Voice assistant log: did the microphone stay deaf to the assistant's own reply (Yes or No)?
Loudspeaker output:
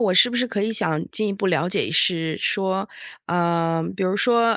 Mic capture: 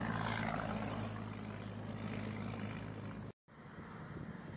Yes